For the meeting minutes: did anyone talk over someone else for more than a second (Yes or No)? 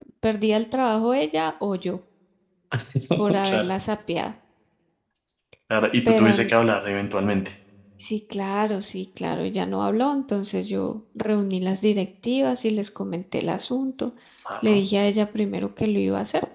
No